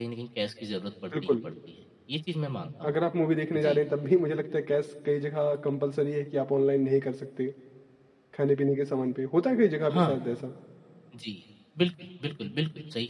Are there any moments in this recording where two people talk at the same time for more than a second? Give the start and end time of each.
none

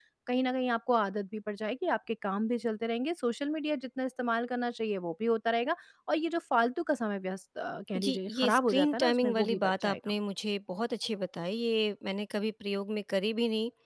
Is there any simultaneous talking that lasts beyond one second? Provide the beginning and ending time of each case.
8.0-10.1

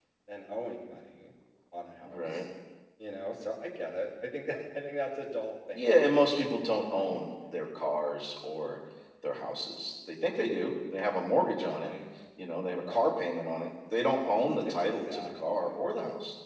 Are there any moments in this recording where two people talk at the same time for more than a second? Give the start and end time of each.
14.2-15.8

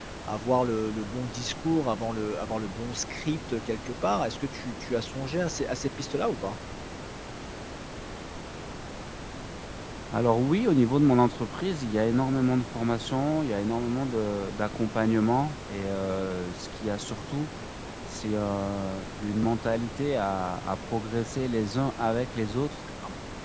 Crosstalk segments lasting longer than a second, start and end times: none

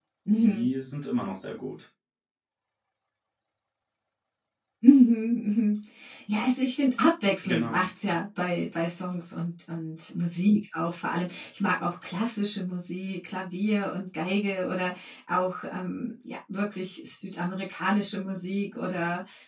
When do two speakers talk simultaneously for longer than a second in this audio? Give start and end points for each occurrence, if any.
none

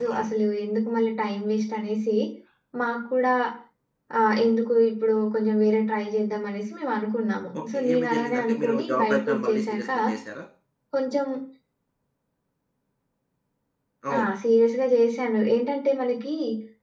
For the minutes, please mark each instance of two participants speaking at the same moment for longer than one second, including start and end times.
7.6-9.9

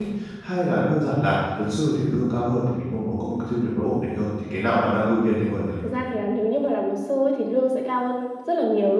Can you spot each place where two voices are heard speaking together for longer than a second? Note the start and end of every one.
none

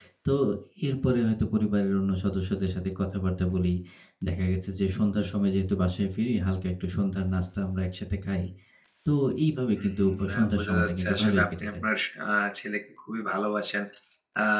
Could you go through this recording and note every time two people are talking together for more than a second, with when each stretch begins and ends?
9.8-11.8

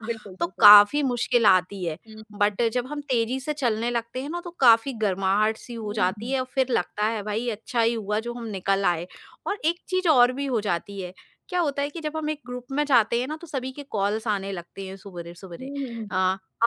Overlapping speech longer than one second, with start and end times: none

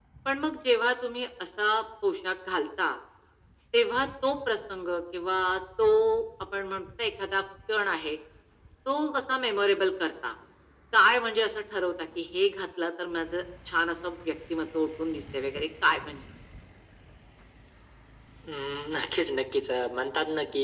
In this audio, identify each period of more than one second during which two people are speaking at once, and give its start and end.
none

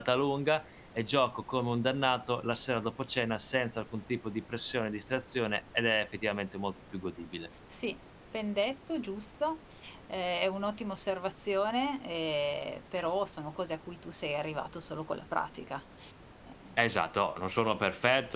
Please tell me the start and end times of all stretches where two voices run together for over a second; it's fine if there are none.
none

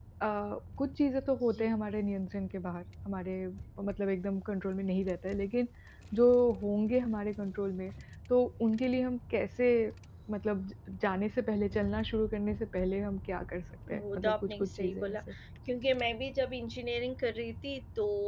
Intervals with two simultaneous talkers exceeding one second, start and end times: 13.9-15.2

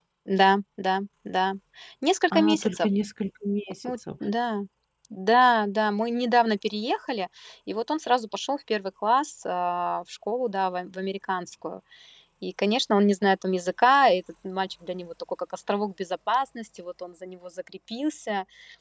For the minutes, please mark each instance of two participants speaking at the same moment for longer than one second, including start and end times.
none

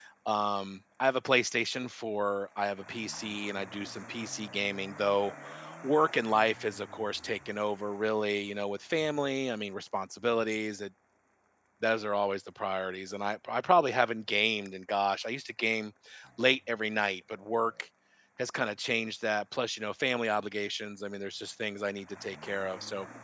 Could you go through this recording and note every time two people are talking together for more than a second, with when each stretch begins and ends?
none

